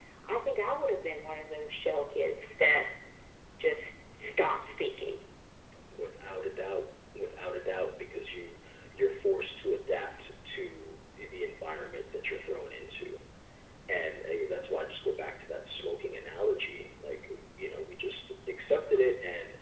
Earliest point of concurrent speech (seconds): none

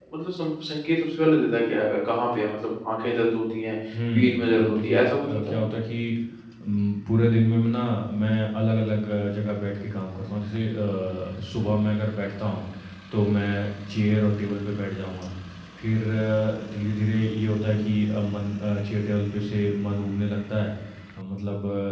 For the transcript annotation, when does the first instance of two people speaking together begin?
4.1 s

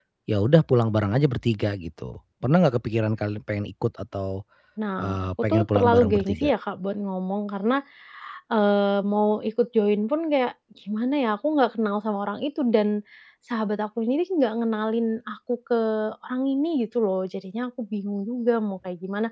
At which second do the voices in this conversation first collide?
5.0 s

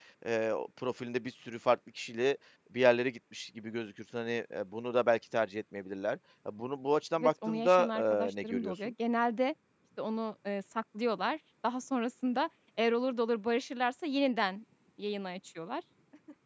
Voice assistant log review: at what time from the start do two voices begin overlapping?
7.2 s

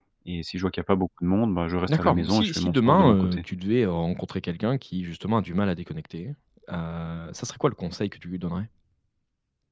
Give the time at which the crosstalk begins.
1.9 s

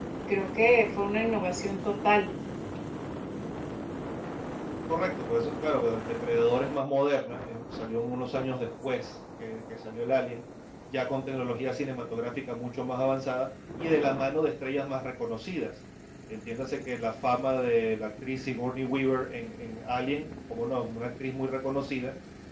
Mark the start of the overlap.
none

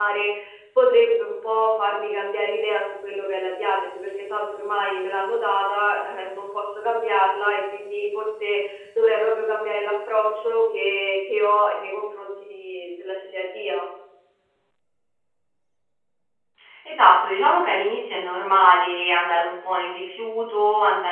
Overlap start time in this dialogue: none

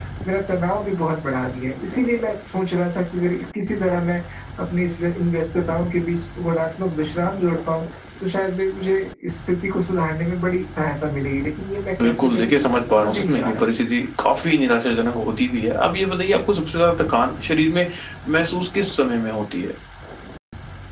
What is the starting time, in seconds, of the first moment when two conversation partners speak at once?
12.0 s

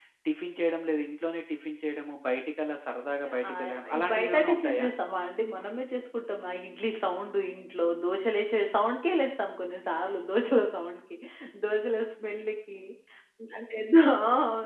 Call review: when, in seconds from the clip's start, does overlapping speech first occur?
3.2 s

